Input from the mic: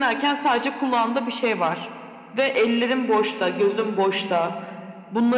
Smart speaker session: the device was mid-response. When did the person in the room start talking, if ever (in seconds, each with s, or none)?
none